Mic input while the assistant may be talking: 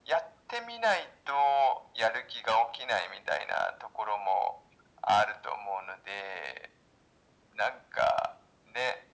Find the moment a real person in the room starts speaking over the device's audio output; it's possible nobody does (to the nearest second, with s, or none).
none